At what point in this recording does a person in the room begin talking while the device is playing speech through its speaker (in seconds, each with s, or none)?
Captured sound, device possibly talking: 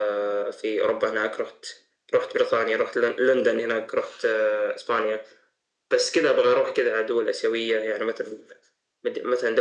none